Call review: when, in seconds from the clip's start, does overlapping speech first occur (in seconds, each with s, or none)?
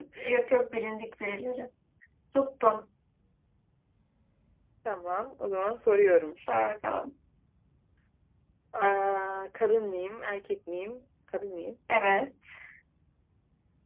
none